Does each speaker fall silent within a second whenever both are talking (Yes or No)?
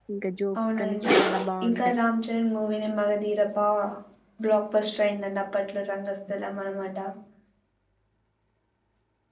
Yes